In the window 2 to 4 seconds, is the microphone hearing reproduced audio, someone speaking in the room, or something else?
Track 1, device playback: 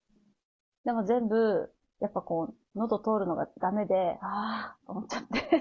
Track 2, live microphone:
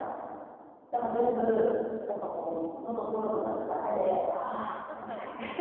echo only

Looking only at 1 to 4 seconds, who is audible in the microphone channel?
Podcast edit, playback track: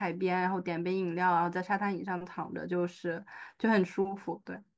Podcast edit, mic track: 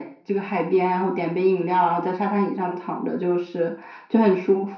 echo only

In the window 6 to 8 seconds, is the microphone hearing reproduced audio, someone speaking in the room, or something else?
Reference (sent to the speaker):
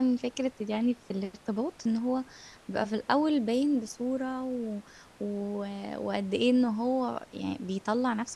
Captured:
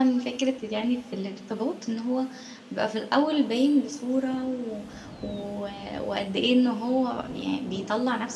echo only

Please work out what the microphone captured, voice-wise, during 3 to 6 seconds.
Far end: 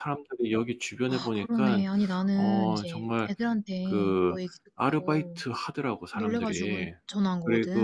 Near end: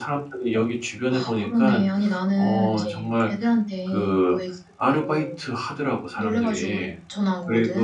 echo only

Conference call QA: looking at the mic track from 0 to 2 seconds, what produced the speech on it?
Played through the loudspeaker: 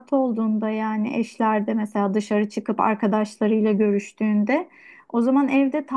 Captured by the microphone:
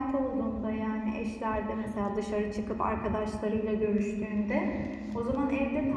echo only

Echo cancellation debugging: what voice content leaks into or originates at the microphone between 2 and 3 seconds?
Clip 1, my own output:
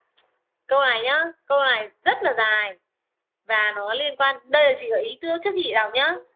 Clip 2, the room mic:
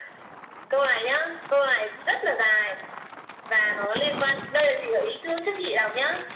echo only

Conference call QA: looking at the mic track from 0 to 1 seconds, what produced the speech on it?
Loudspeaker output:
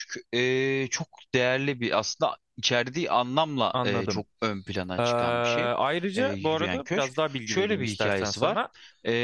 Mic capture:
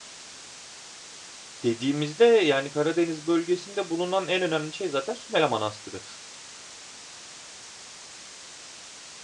neither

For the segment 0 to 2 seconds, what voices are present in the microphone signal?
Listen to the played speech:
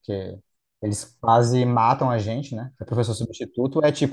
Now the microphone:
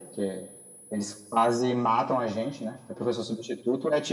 echo only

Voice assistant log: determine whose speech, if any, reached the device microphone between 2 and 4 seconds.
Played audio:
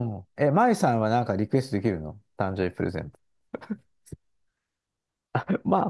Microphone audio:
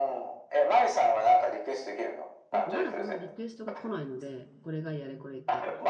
both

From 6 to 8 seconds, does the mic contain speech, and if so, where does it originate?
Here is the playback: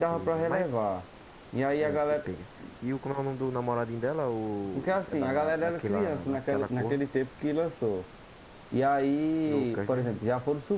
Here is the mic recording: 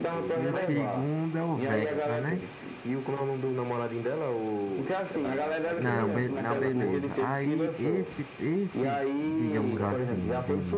both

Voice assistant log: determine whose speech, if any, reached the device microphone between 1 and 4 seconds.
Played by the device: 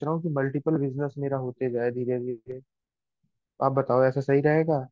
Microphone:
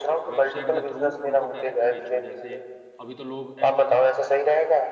both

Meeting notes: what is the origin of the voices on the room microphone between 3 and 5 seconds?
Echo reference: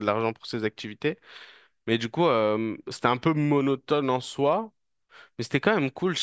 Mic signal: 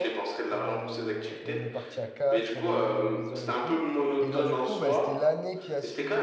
both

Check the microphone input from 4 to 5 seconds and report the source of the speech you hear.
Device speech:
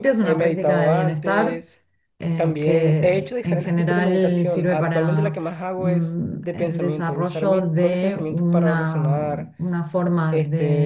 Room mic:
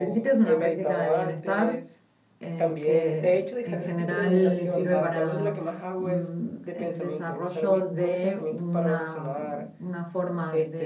echo only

